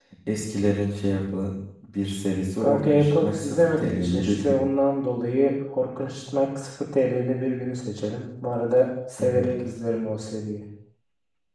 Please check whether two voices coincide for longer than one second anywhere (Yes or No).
Yes